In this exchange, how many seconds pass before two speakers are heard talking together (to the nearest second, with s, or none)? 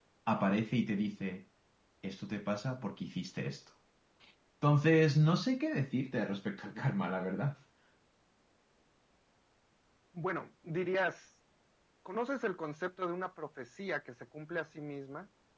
none